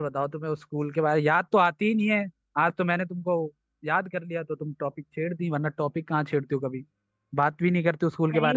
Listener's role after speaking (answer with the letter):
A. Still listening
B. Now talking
B